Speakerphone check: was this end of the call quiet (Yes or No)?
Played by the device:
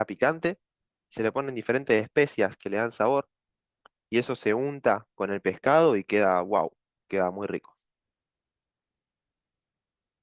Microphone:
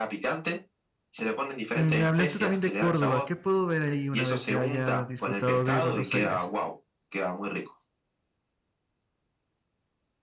No